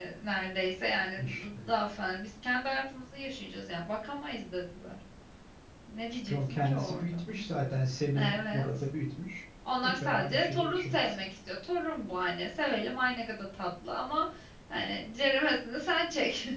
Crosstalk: present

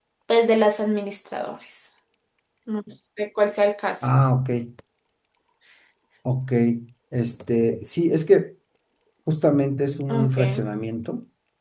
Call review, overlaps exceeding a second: none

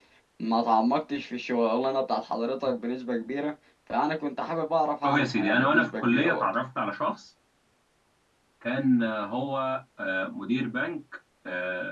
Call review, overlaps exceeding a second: present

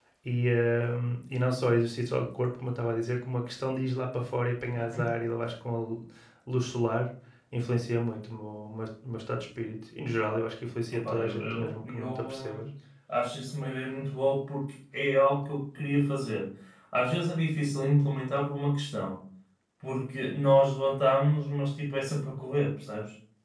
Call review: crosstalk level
present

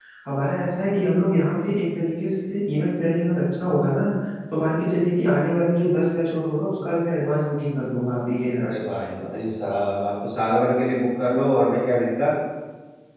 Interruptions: none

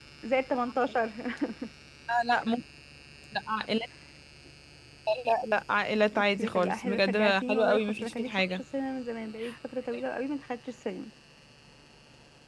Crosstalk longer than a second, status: present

